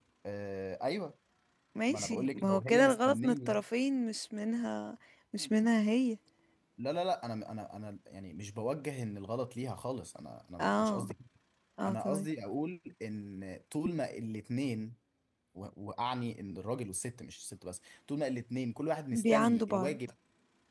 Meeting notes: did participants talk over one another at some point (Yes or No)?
Yes